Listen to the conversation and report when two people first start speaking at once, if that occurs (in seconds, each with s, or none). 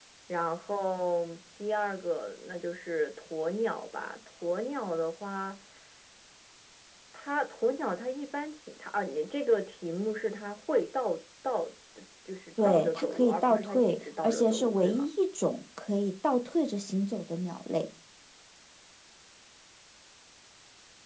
12.6 s